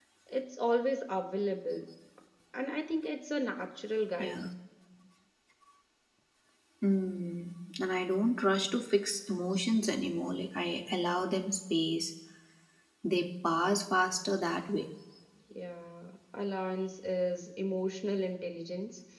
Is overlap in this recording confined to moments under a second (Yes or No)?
Yes